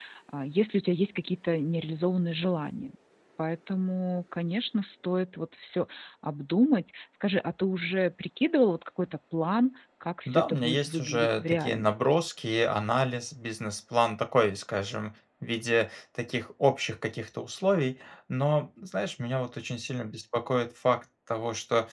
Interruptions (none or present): present